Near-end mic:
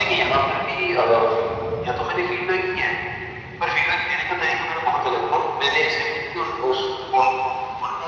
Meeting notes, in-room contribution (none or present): none